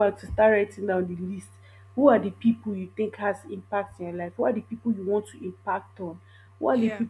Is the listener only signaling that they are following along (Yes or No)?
Yes